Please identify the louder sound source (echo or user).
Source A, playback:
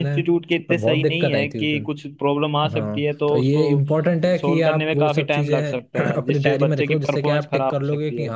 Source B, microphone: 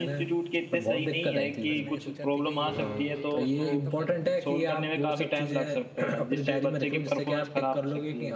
echo